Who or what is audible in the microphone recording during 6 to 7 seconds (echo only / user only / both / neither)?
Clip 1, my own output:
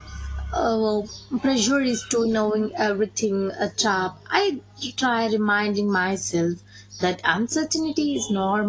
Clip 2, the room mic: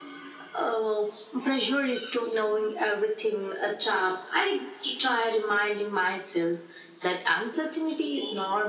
echo only